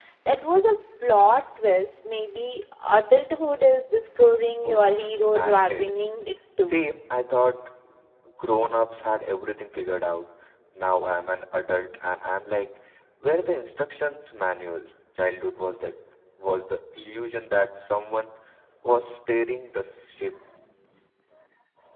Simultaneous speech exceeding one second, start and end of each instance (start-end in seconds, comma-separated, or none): 4.6-5.9